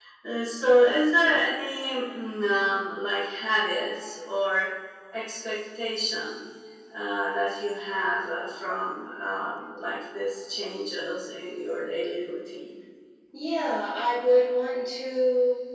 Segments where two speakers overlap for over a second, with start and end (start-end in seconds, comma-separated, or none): none